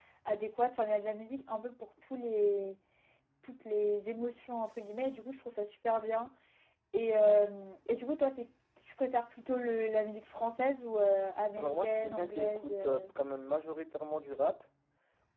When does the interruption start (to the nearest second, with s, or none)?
12 s